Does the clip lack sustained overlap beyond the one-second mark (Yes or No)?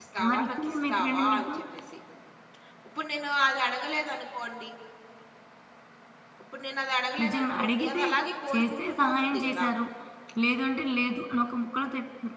No